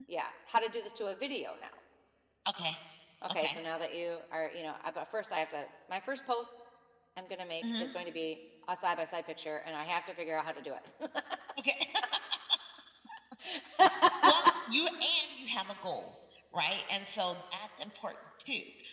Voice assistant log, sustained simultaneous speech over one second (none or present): none